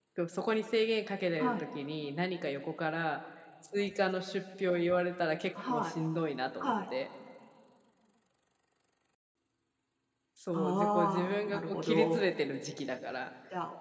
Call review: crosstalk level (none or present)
present